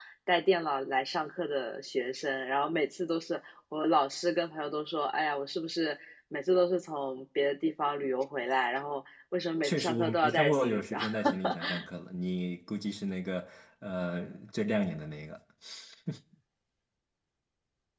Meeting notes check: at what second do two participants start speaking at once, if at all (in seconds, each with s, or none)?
9.6 s